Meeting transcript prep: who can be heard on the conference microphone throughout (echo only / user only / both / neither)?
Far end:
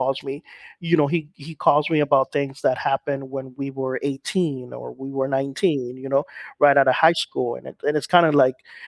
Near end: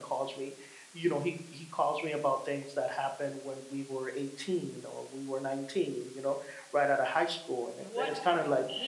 both